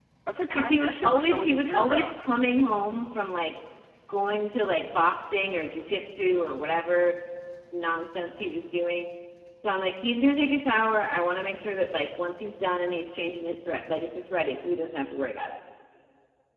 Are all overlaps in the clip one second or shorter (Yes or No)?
No